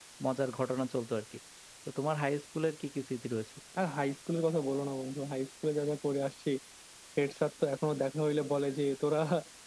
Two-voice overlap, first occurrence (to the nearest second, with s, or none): none